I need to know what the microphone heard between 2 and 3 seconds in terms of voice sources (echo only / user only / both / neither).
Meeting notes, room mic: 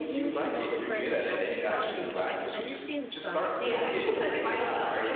both